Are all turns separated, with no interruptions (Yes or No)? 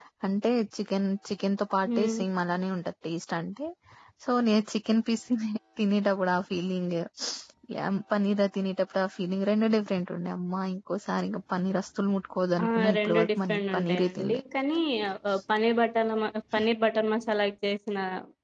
No